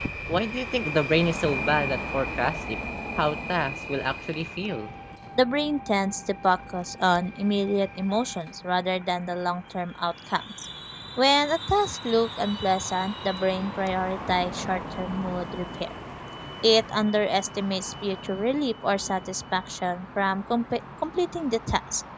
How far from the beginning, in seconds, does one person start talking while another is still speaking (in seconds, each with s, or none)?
none